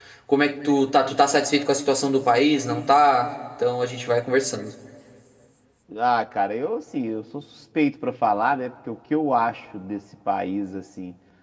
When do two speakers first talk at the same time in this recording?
none

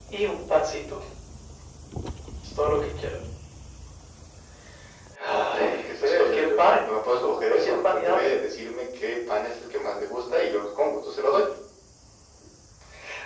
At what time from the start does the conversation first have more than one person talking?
5.5 s

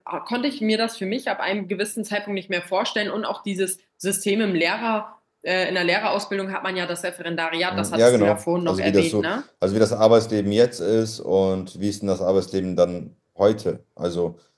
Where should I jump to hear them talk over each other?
7.7 s

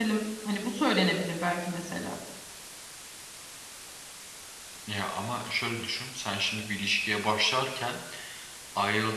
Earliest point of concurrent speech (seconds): none

